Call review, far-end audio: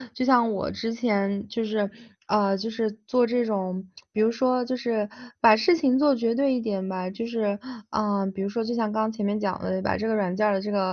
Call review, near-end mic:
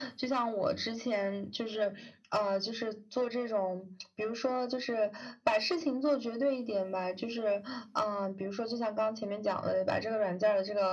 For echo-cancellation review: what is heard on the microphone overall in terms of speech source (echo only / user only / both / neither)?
echo only